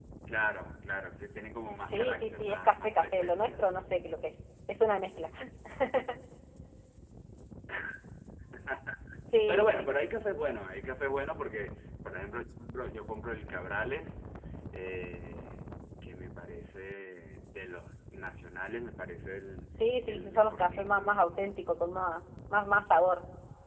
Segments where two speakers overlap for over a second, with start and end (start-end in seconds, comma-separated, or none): 1.9-3.6, 20.1-21.4